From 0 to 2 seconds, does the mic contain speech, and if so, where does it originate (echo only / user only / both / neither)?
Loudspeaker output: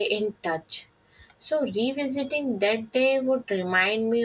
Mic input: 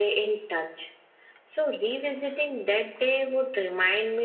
echo only